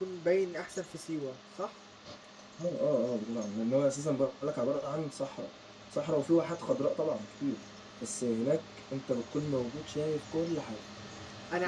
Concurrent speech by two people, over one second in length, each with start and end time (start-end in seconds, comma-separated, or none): none